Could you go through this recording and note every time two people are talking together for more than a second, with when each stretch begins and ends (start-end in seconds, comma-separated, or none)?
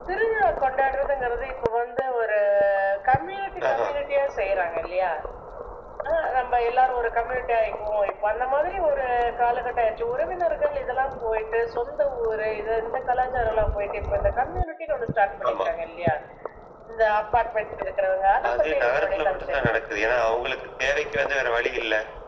18.5-19.7